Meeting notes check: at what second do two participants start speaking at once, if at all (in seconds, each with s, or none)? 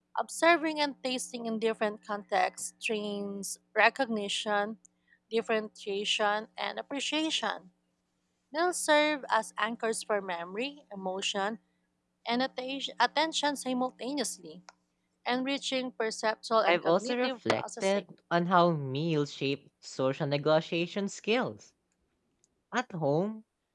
16.6 s